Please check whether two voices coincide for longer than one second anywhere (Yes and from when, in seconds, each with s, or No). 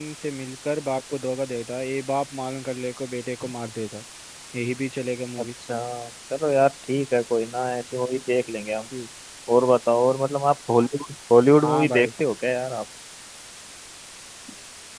No